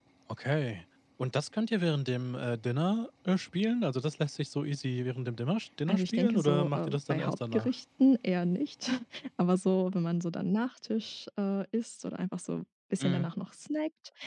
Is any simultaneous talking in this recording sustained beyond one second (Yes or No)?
Yes